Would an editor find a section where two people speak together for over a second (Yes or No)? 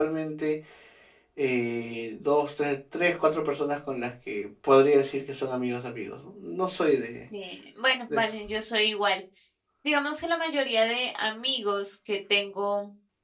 No